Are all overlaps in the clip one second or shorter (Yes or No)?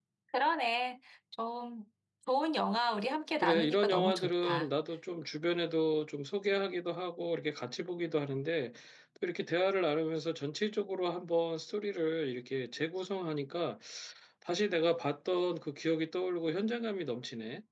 No